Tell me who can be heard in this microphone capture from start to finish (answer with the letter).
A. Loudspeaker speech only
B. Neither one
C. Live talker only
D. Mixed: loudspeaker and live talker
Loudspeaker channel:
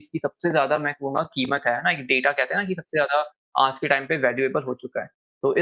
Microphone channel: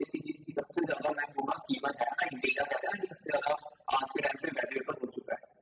A